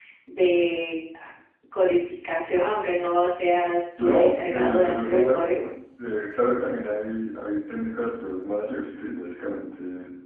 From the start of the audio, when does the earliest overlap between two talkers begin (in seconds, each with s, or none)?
4.0 s